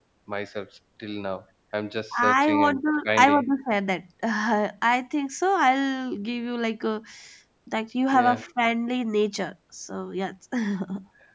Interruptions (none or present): present